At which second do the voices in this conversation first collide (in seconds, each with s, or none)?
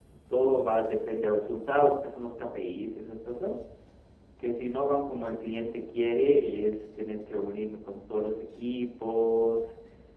none